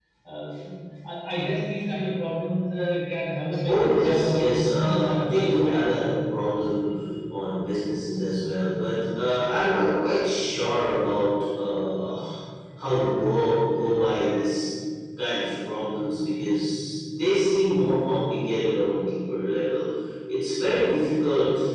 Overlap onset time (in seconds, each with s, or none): 3.7 s